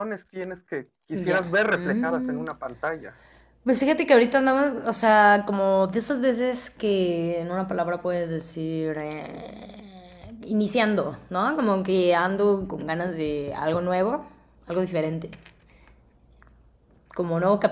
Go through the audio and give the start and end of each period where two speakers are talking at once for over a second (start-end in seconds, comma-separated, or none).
1.1-2.5